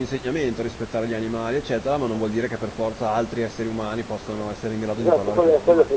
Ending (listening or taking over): taking over